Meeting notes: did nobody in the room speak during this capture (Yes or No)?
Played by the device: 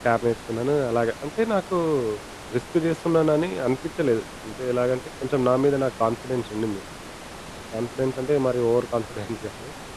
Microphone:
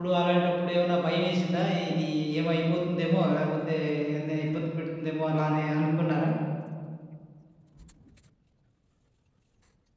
No